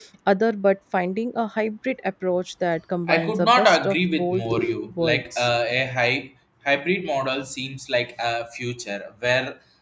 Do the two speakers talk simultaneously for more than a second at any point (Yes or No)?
Yes